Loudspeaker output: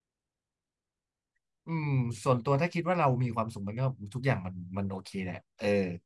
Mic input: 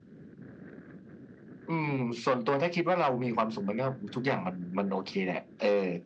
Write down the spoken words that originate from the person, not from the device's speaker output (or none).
none